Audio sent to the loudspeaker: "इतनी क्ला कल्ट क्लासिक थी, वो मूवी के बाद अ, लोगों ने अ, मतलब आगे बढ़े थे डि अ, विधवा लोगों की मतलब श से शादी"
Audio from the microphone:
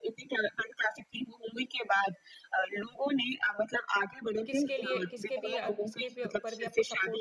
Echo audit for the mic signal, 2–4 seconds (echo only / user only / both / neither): echo only